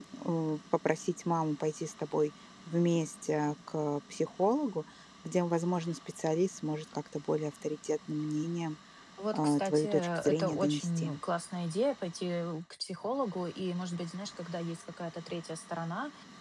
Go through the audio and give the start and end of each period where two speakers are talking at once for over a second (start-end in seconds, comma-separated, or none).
9.3-11.1